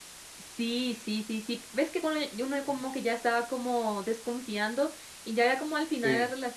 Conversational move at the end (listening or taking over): listening